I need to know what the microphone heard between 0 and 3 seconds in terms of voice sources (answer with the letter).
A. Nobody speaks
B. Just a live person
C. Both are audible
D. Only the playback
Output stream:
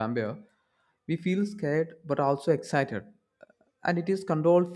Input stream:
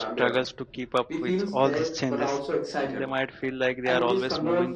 C